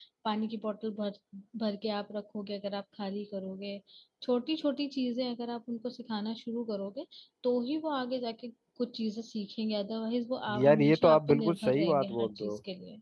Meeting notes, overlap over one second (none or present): present